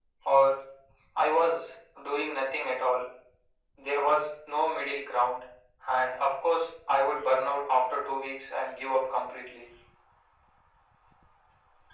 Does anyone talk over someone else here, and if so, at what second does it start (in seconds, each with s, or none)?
none